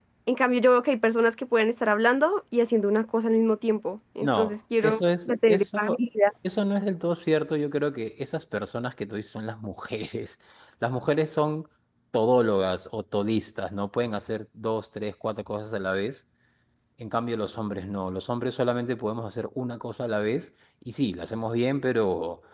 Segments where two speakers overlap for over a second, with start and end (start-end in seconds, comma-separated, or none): 4.2-6.0